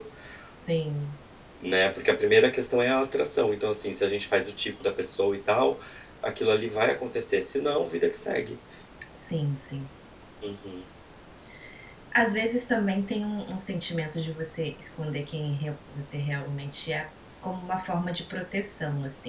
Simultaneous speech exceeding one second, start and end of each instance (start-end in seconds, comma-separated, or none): none